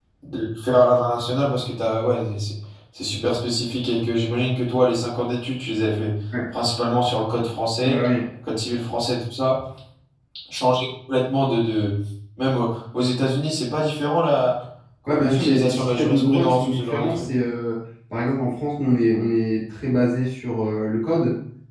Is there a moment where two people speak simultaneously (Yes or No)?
Yes